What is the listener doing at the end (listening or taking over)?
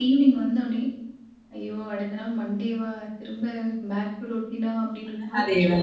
taking over